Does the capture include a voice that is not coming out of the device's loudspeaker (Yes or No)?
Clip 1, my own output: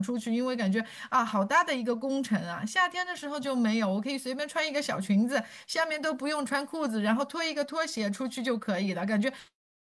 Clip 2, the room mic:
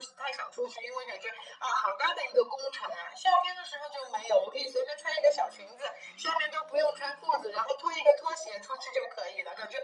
No